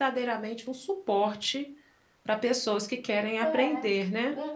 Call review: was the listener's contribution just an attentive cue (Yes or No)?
No